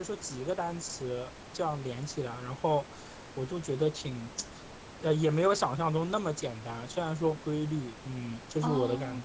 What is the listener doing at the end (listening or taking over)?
taking over